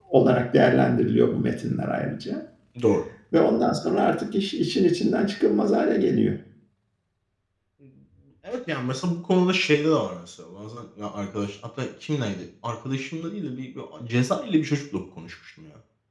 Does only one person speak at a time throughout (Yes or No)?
Yes